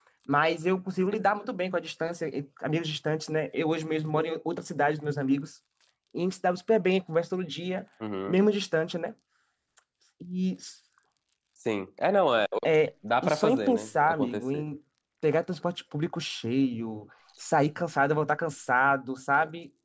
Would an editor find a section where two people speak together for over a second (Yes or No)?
Yes